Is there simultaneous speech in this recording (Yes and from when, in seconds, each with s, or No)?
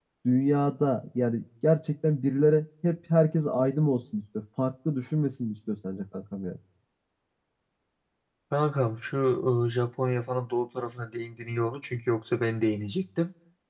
No